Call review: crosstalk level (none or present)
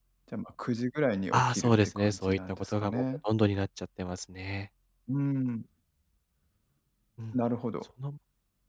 present